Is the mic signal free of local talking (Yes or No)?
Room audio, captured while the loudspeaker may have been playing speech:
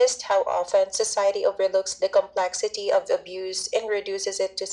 Yes